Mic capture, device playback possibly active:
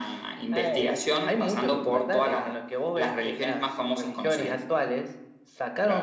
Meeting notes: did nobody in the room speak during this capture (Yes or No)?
Yes